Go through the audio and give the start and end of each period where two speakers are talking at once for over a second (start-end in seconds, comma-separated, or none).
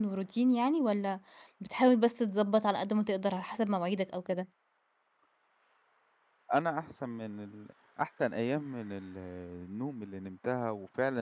none